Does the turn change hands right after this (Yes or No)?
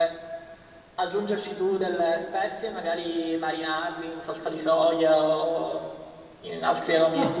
No